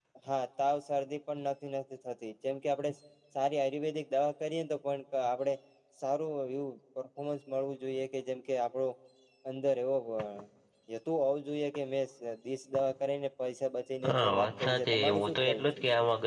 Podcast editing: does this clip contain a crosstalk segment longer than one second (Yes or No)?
Yes